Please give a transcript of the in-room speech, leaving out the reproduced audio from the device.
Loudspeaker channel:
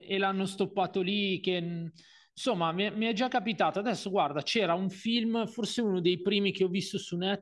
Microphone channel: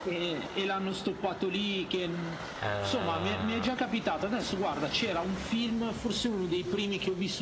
Eh,

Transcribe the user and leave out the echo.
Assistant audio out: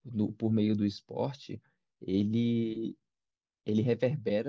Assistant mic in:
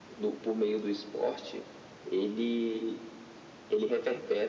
none

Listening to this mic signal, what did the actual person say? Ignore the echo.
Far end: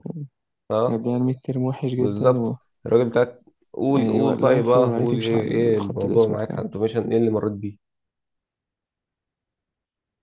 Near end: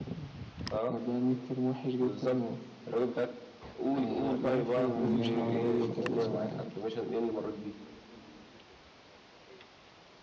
كنا بنعمل عربية كده

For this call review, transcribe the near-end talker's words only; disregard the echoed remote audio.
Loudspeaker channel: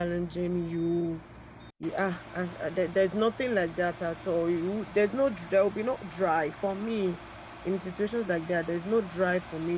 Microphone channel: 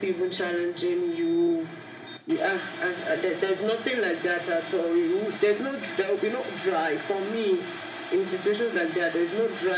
none

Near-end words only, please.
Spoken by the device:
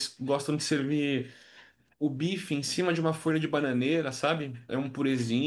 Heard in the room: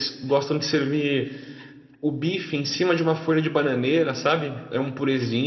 none

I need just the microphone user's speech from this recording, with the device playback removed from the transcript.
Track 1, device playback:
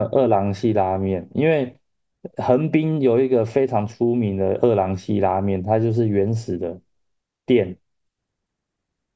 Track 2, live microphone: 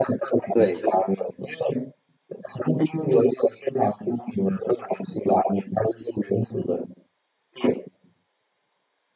对

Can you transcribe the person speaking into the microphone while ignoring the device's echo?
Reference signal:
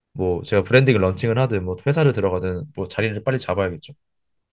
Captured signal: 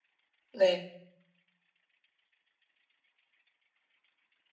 네.

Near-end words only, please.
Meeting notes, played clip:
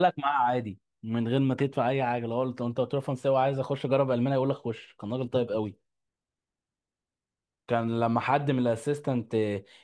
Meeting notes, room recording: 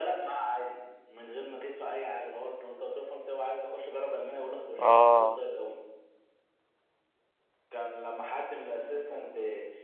اه

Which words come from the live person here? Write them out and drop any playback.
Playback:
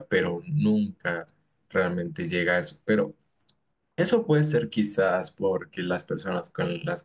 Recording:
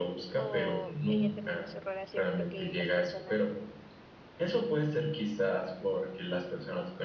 o ella terminó su relación porque las personas

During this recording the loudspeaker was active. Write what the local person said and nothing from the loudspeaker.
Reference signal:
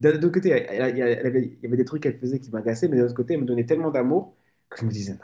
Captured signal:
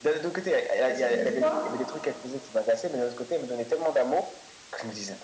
Parce que des fois,

